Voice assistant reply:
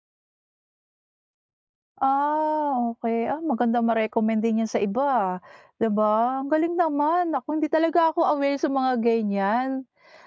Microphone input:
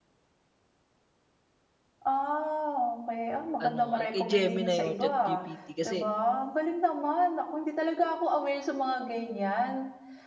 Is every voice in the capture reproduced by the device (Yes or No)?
No